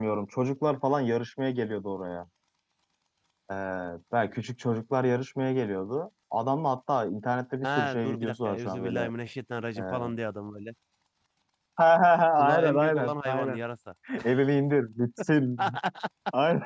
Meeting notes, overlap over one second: present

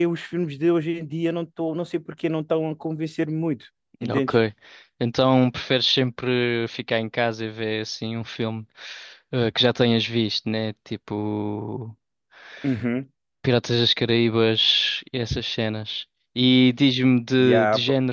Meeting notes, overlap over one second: none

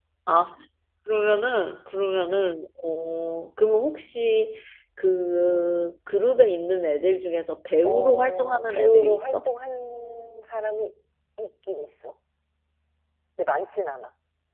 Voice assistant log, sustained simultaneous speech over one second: present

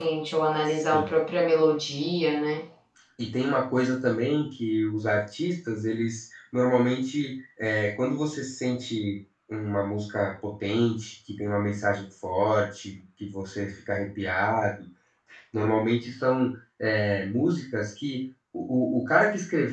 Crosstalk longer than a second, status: none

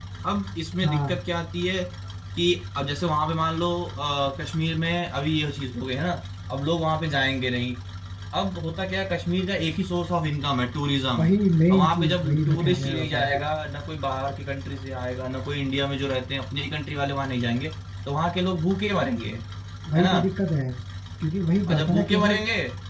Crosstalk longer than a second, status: present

